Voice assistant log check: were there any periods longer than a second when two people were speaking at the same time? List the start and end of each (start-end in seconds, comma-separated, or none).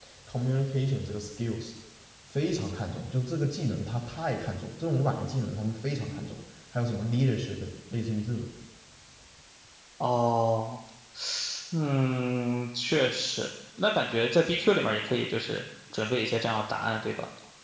none